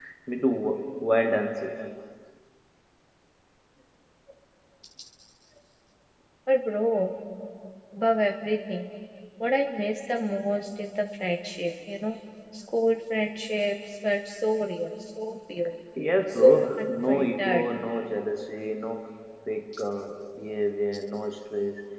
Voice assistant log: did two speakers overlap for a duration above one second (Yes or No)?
Yes